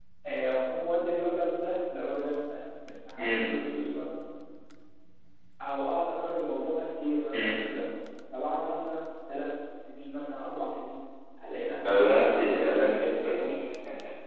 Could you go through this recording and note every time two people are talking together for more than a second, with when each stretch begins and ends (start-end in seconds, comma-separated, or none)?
11.8-13.5